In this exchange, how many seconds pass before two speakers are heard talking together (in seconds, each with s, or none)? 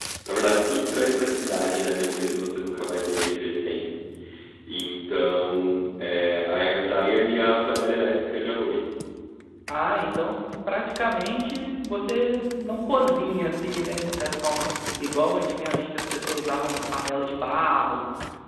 none